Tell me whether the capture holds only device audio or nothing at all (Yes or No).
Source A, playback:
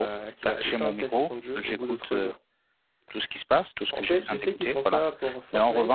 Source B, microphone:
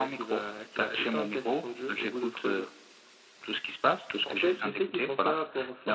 Yes